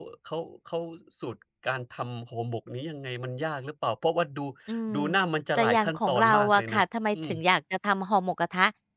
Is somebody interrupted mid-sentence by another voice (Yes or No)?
Yes